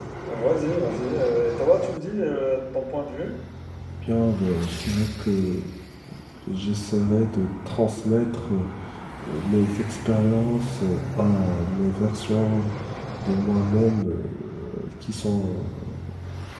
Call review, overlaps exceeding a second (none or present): none